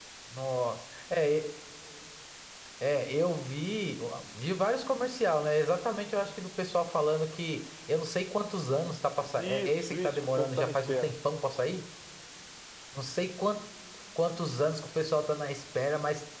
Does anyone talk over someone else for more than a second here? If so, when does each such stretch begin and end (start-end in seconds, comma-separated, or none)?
9.4-11.1